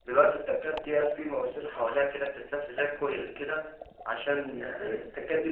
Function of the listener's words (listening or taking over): listening